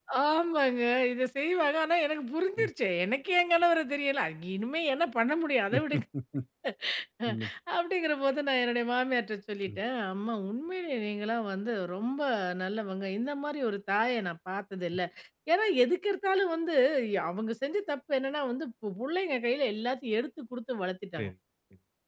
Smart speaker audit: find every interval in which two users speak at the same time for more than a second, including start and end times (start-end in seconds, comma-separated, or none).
none